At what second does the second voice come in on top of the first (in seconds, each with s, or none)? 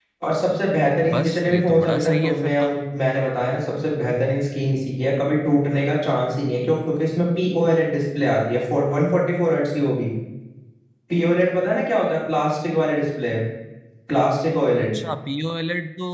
1.1 s